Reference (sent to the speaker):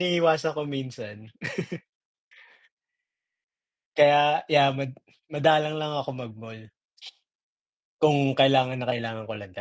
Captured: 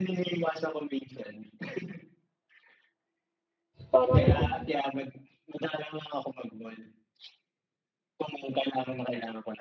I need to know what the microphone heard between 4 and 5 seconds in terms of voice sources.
both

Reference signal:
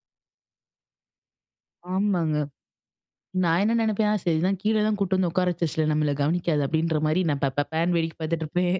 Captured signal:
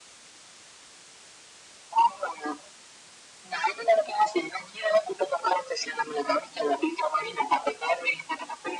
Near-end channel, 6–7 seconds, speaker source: echo only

